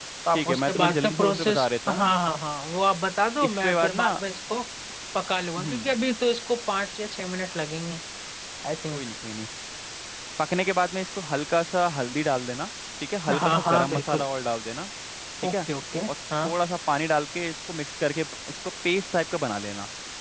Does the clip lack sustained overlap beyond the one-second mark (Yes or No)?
No